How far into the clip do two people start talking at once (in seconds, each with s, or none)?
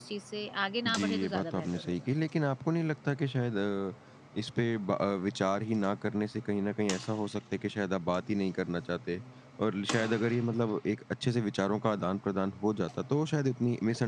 0.8 s